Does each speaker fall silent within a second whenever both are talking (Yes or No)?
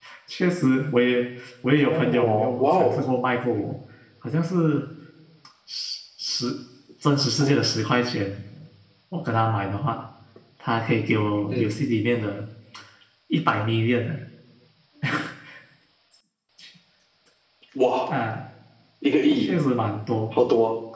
No